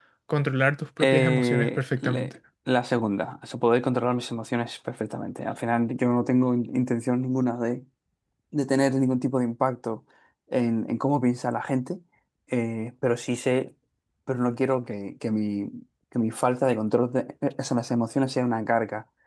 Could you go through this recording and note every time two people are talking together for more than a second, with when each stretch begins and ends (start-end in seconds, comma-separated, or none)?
1.0-2.3